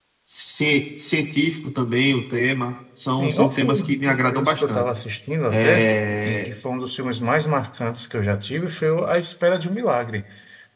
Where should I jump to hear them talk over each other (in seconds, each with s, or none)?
3.2 s